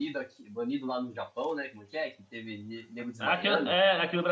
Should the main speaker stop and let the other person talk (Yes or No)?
Yes